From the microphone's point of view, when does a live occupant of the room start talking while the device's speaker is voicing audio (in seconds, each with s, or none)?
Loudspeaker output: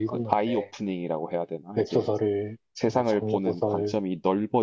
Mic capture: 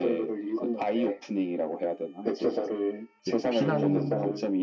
3.2 s